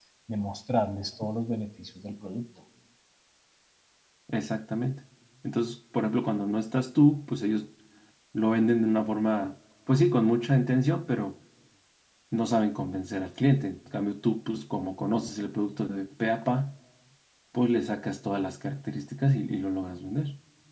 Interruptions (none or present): none